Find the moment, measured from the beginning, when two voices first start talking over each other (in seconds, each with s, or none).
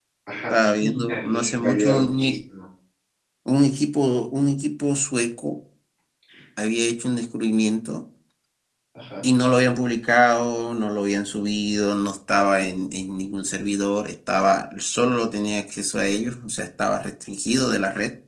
0.5 s